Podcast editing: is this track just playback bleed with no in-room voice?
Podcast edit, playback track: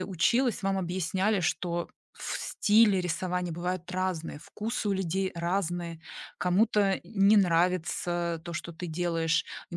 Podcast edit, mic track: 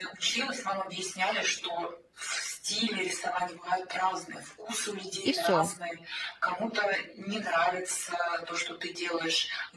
No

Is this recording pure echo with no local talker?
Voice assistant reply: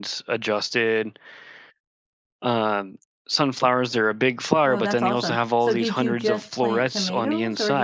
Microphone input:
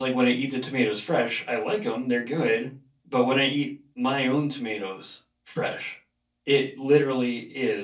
No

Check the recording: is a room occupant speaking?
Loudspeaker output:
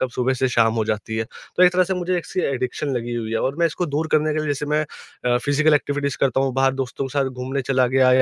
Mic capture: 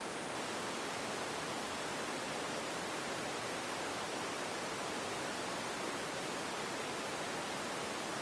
No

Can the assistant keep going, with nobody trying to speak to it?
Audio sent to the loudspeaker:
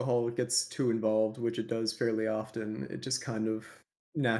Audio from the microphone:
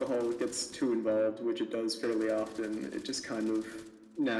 Yes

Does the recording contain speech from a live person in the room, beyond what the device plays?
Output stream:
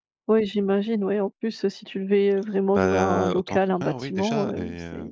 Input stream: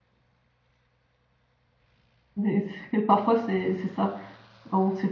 Yes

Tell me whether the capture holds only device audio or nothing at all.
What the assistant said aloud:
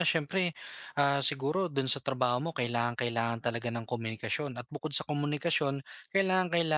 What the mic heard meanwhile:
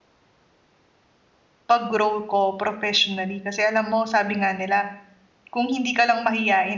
No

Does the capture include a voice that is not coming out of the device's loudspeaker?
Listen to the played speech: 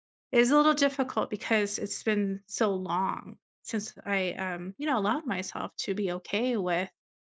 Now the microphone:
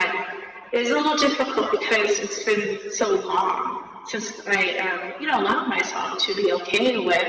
No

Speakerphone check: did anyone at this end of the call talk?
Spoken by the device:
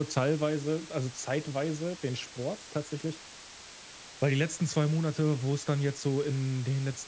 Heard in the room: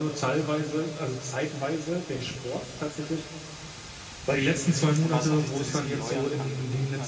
Yes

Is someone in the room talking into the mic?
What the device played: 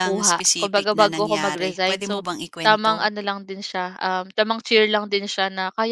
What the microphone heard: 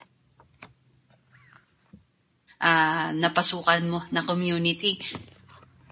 Yes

